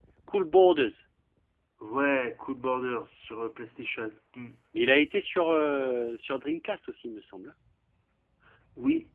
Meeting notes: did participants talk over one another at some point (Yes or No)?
No